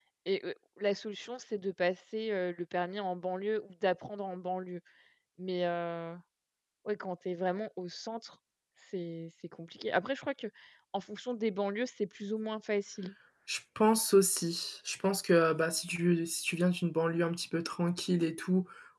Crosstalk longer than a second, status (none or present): none